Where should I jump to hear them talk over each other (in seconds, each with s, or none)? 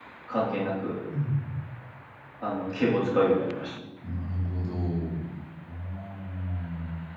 none